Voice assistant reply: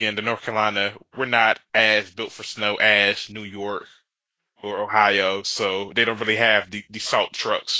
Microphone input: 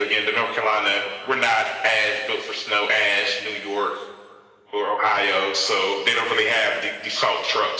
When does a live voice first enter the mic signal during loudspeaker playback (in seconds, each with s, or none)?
none